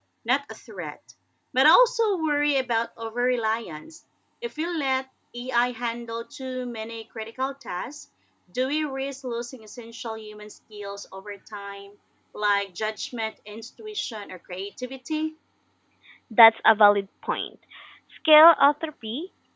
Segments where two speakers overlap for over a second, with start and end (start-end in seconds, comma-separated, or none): none